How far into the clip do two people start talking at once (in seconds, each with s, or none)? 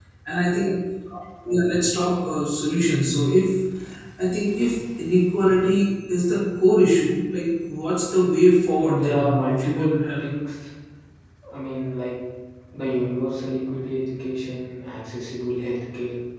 8.8 s